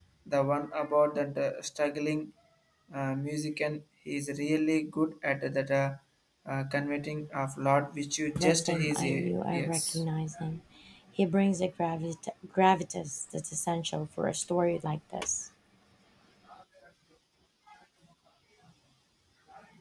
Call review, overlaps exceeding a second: present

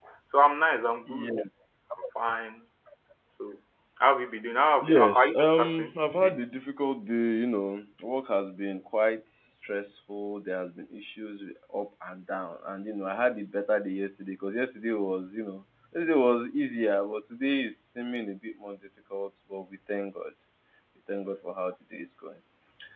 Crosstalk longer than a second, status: present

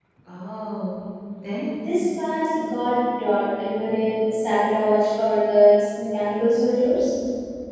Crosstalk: none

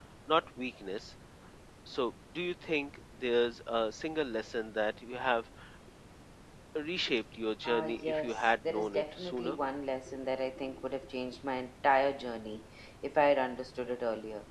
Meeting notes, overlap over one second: present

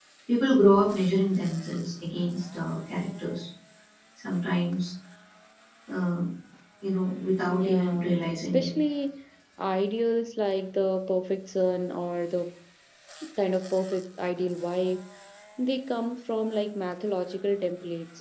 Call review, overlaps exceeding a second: present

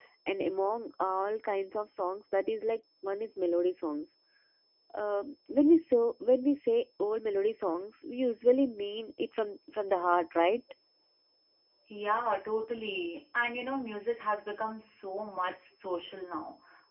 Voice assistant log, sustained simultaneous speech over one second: none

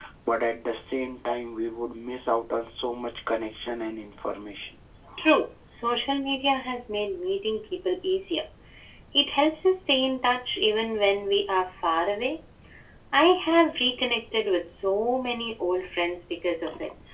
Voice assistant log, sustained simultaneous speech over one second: none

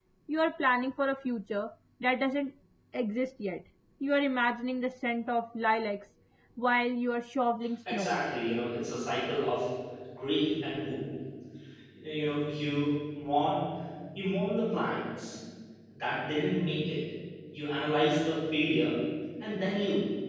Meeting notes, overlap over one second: none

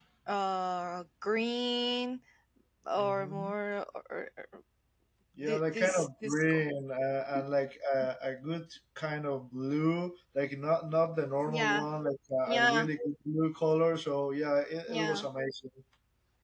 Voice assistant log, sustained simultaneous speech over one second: present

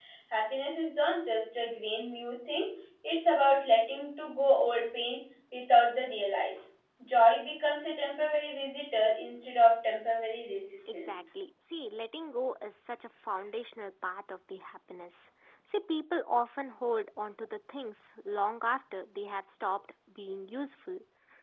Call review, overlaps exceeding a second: none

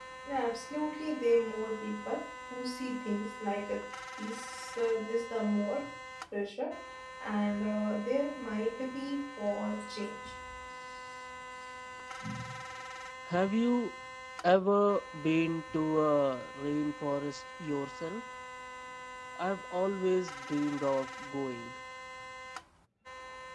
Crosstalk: none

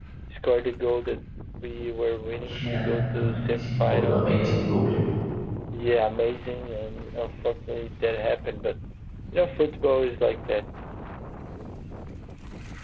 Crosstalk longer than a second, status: present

